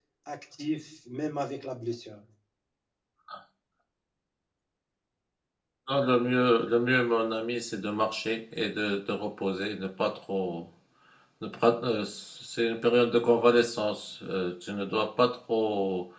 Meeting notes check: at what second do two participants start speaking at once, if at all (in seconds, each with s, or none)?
none